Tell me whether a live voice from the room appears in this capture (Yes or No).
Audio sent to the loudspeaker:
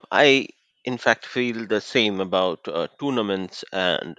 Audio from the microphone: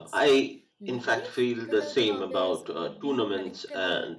Yes